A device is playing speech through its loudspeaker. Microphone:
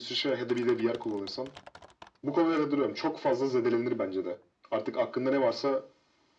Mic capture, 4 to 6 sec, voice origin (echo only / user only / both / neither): echo only